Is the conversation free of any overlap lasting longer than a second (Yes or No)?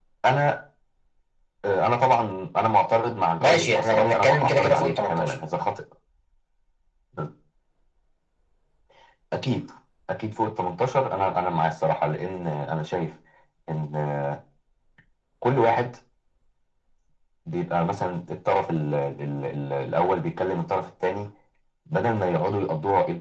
No